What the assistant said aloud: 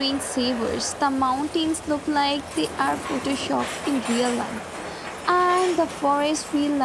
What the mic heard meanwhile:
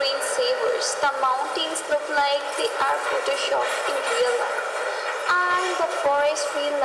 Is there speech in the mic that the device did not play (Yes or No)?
No